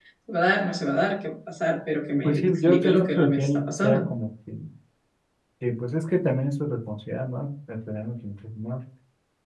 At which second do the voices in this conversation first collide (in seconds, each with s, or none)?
2.2 s